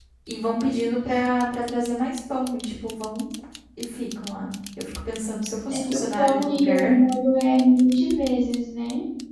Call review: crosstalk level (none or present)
present